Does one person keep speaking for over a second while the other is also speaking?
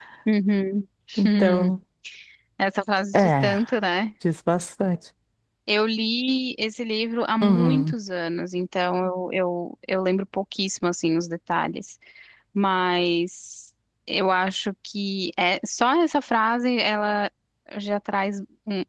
No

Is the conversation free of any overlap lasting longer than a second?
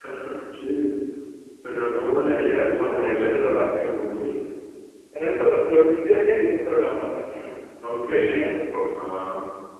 No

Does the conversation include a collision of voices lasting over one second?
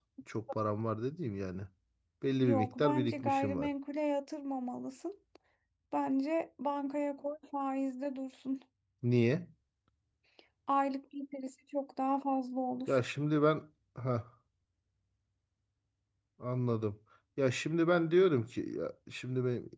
Yes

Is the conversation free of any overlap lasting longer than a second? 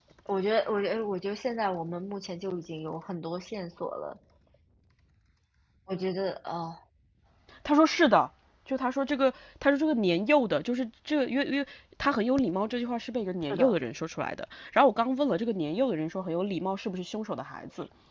Yes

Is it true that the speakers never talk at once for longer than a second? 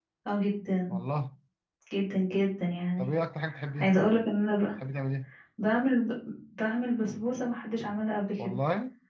Yes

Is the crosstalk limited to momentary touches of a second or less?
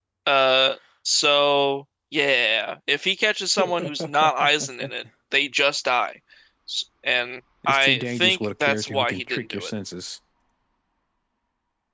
No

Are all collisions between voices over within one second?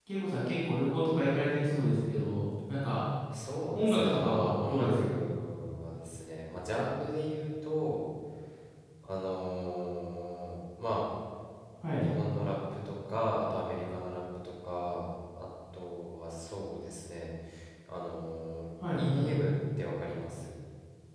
No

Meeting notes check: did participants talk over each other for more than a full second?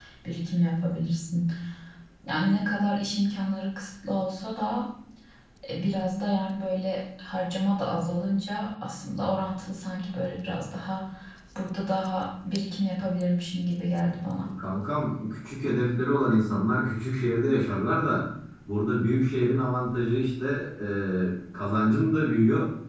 No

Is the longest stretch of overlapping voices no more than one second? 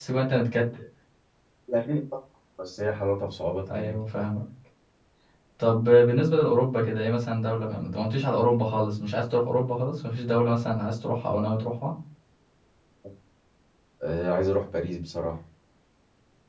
Yes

